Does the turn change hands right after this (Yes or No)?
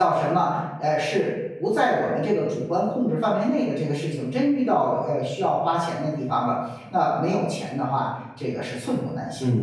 Yes